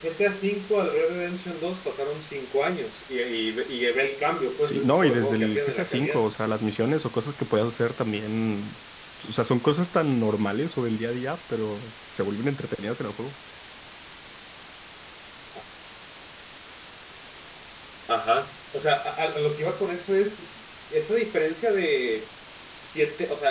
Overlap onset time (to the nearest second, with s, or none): 5 s